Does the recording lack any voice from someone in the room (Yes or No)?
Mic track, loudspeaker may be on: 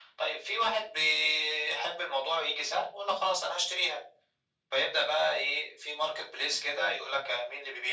Yes